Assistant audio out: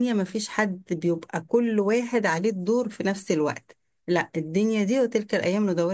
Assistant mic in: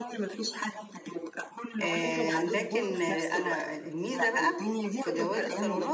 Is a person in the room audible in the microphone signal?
Yes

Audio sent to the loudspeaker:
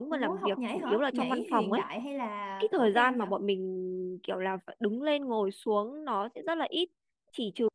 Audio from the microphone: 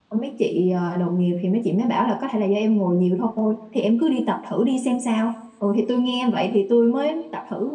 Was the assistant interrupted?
Yes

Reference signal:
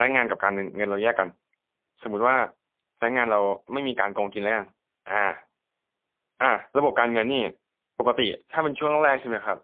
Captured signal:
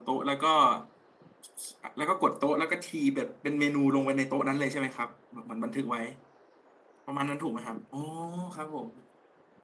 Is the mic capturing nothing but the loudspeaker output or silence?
No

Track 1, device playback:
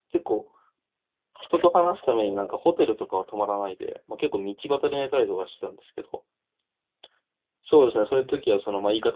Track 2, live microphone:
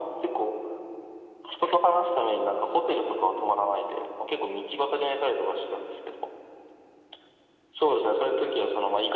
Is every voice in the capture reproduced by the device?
Yes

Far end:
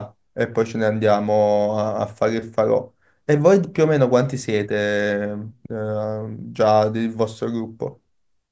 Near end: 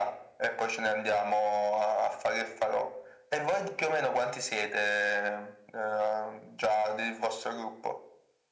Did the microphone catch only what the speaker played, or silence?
Yes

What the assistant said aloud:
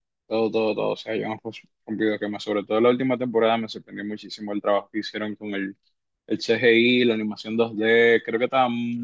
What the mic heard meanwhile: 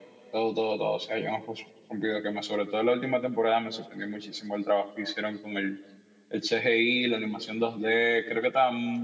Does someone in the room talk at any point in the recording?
No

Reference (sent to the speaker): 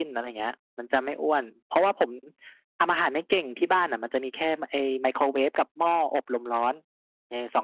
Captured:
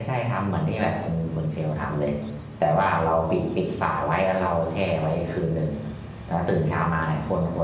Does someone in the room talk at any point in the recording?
Yes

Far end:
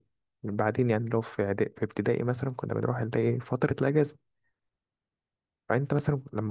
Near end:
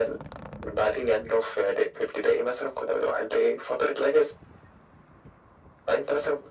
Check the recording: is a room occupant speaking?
No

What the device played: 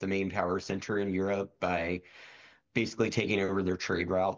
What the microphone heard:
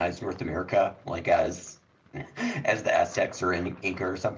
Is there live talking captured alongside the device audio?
Yes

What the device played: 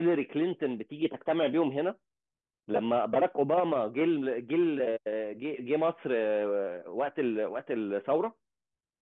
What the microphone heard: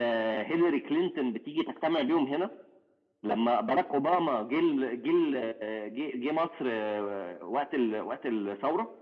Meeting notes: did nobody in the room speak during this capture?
Yes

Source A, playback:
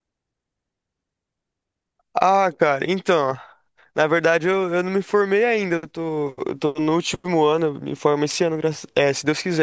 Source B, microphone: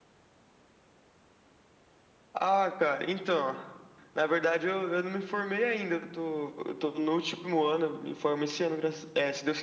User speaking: No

